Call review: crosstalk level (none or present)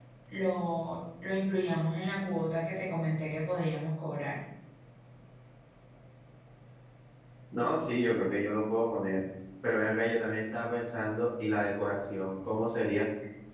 none